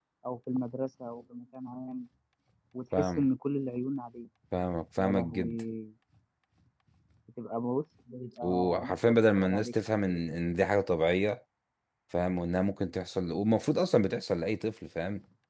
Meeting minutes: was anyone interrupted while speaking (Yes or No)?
Yes